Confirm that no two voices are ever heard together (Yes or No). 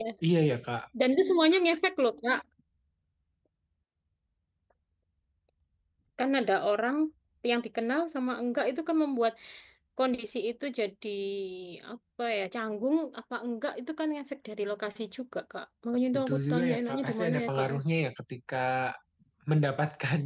No